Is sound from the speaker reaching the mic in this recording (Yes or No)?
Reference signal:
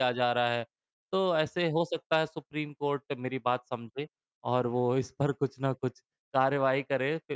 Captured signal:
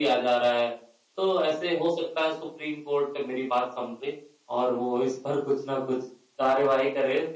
Yes